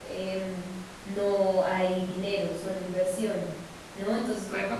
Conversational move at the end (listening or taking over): taking over